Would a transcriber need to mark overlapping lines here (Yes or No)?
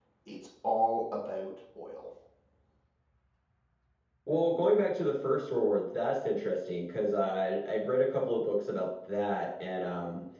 No